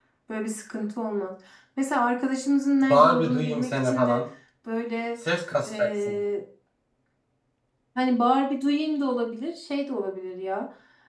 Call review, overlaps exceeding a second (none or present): present